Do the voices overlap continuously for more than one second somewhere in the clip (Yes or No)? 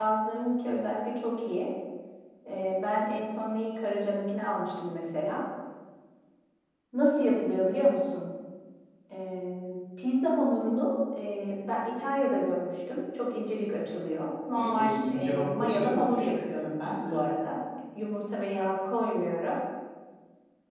Yes